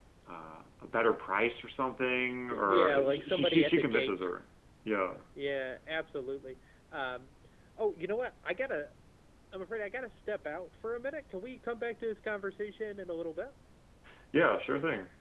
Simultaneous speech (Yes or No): Yes